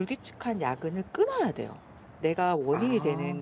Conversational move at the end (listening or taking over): listening